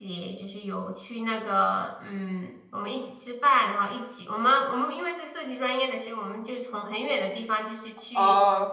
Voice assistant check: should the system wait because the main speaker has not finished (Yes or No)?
Yes